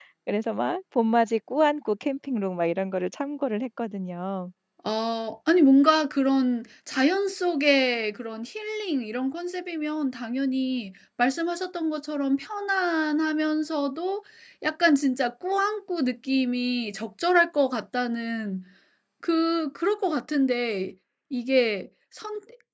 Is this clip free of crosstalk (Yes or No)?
Yes